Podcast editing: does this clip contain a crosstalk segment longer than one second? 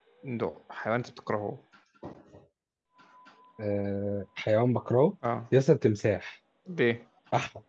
No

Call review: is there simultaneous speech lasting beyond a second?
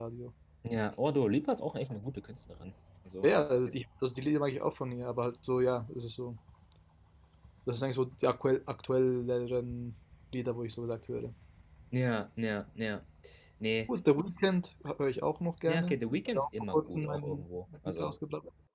Yes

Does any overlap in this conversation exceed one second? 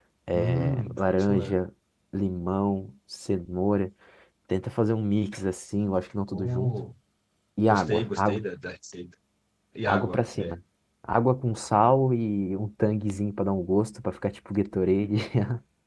Yes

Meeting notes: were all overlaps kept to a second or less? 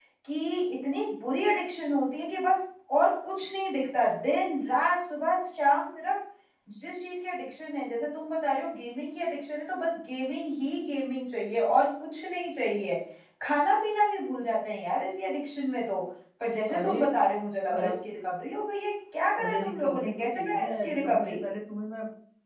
No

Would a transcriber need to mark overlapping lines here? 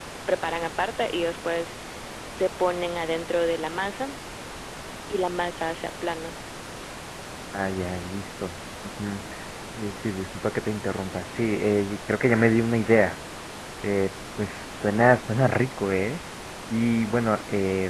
No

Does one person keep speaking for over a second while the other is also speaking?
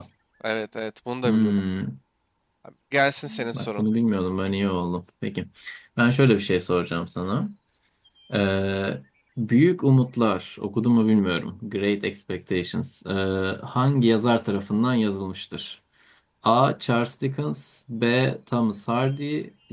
No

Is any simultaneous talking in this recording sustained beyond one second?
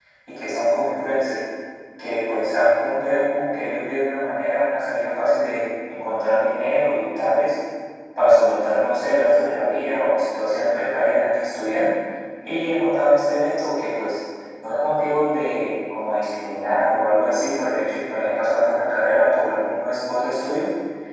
No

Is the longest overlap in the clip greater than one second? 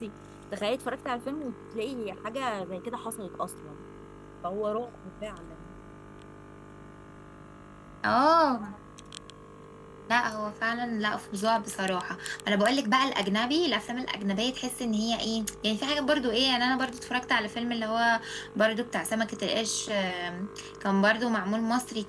No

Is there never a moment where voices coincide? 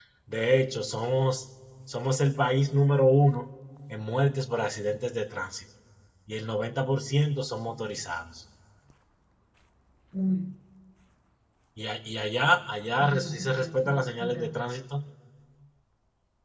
No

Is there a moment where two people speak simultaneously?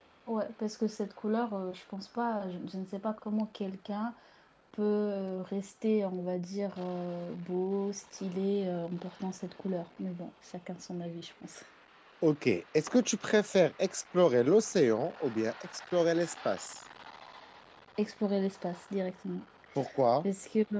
No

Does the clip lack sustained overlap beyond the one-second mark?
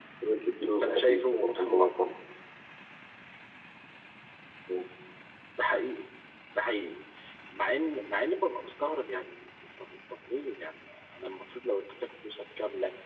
No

